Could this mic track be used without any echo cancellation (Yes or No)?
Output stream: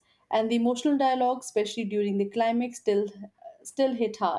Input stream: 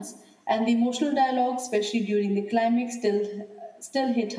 No